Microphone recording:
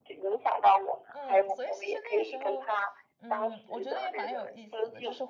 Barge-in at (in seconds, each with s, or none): 1.1 s